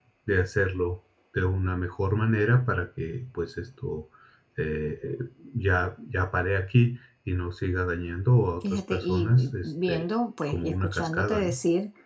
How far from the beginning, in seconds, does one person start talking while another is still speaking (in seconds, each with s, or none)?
8.6 s